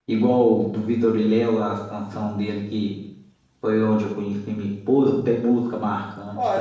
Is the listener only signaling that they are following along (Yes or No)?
No